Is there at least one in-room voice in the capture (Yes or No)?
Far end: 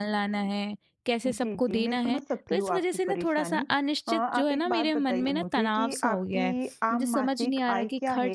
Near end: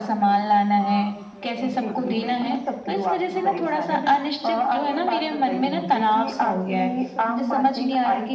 Yes